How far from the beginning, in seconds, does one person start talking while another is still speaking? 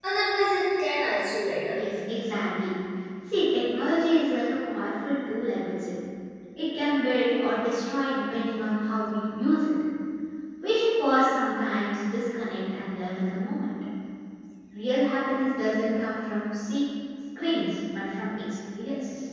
none

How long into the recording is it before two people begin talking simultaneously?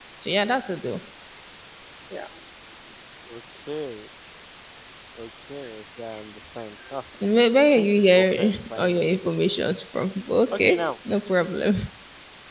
7.7 s

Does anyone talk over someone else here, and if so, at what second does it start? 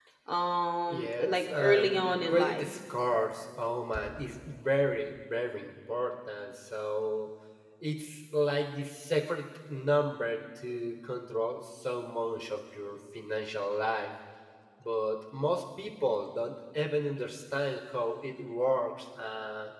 0.9 s

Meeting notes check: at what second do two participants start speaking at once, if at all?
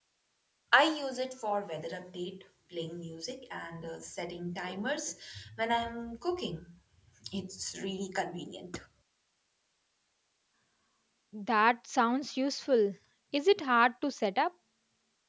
none

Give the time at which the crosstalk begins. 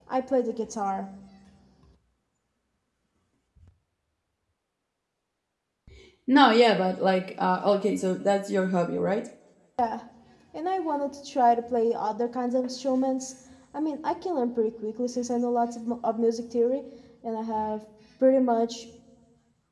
none

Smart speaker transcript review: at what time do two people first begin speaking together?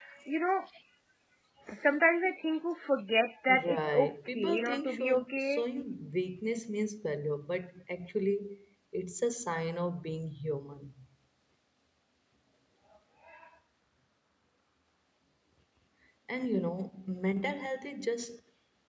3.5 s

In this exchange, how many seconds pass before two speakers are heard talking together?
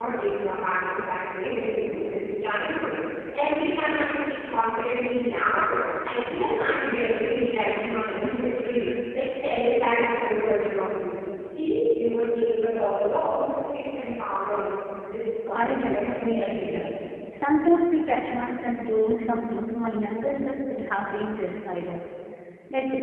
15.5 s

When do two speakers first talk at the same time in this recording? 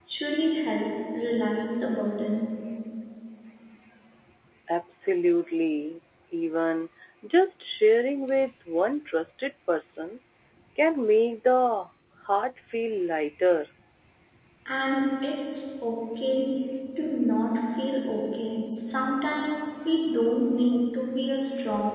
none

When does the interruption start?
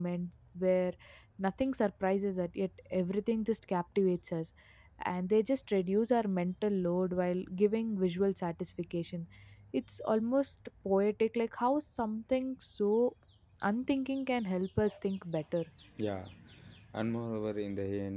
none

